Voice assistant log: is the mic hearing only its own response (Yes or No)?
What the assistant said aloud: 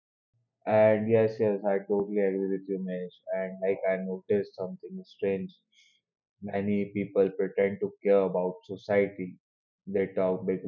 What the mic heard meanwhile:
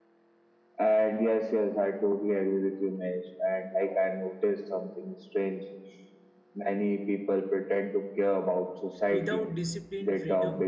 No